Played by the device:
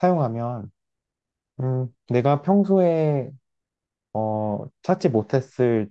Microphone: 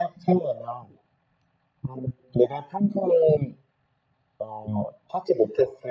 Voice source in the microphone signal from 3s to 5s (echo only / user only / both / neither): echo only